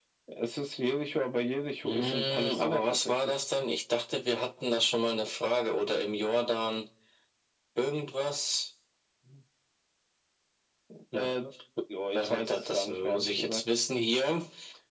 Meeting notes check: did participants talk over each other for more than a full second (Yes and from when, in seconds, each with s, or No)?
Yes, from 1.8 s